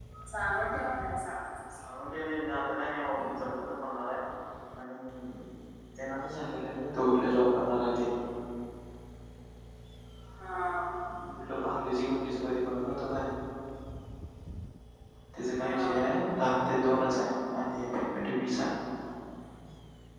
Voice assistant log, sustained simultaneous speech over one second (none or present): none